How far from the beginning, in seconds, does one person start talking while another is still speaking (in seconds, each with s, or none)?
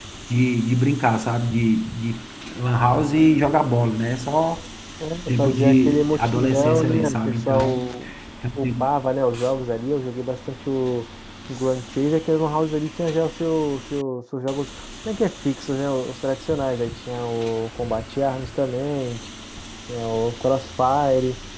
5.3 s